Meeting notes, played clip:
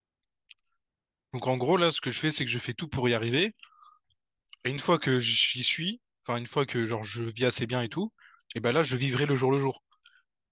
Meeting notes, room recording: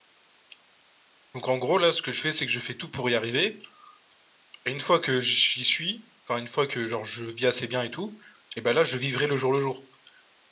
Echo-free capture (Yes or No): No